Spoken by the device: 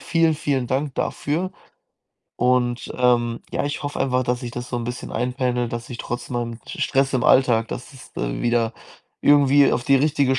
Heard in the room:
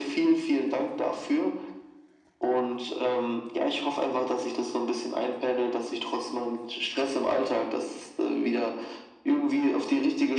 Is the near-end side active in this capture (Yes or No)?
No